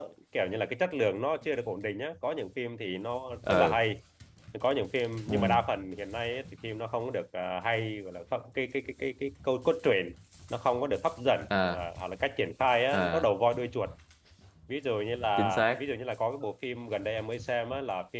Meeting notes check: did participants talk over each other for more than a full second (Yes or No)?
No